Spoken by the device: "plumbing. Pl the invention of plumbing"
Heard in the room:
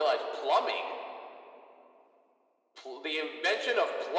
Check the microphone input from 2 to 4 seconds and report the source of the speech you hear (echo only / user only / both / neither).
echo only